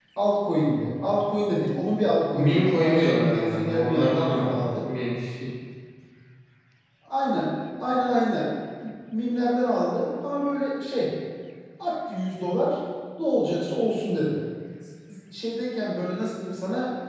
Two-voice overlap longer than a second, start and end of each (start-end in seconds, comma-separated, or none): 2.3-4.8